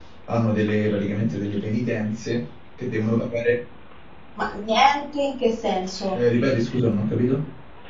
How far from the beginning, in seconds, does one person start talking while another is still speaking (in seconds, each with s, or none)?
none